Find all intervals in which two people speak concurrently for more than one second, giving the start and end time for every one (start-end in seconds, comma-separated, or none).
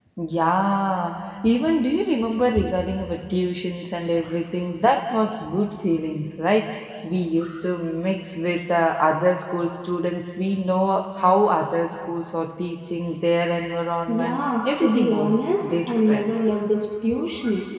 14.1-16.3